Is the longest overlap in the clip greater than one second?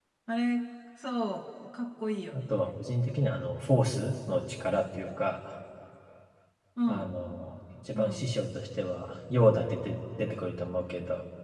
No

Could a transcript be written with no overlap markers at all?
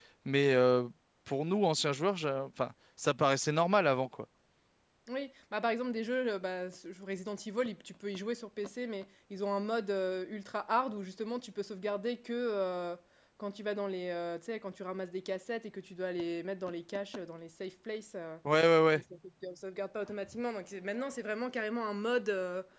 Yes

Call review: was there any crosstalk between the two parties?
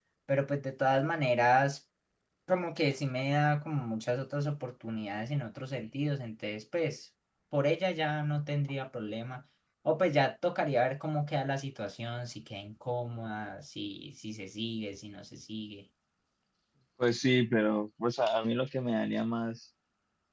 No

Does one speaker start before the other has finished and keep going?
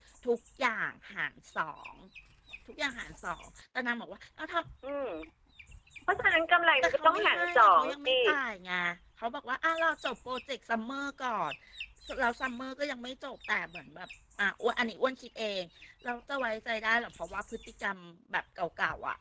Yes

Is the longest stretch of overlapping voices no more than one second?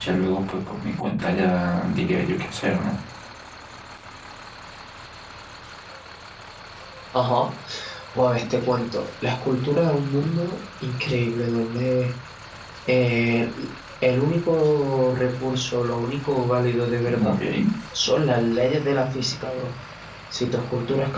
Yes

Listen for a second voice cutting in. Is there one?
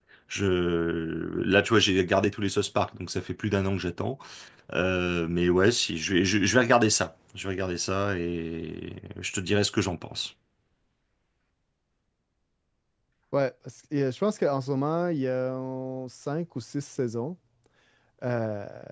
No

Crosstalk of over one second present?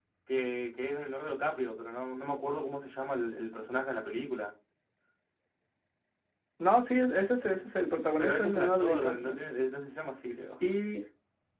Yes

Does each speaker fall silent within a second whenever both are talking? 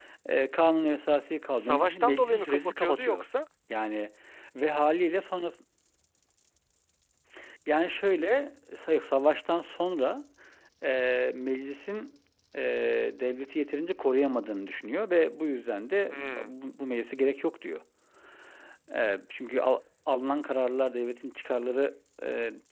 No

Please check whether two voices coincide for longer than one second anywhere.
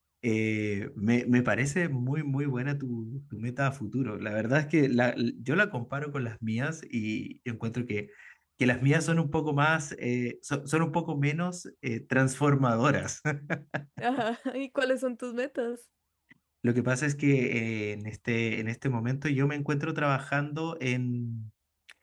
No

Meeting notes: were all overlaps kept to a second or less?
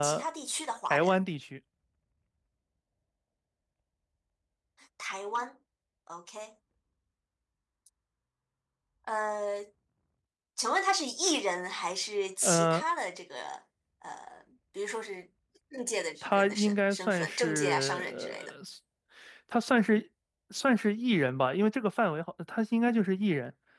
No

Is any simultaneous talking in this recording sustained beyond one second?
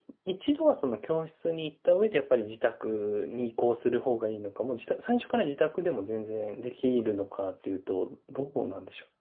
No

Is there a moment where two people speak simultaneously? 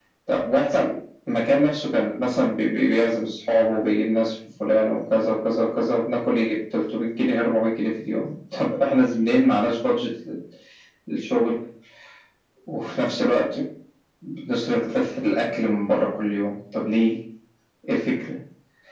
No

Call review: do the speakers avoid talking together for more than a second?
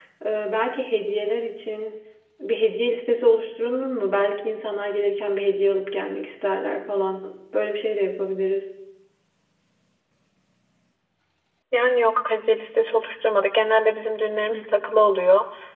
Yes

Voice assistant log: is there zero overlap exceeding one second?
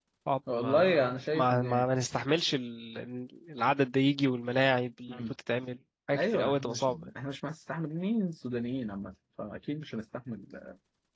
No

